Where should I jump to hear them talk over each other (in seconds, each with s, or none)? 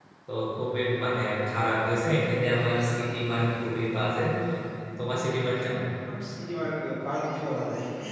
none